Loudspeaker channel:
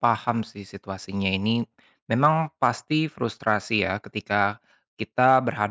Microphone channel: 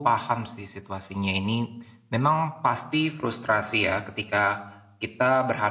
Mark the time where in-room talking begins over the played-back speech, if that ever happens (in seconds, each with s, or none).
none